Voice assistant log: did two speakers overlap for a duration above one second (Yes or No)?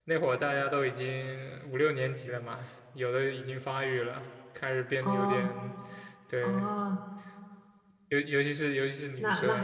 No